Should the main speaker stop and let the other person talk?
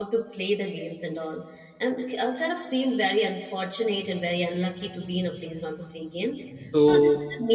No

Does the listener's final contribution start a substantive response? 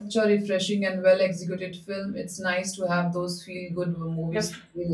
Yes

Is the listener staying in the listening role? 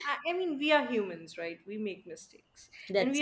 Yes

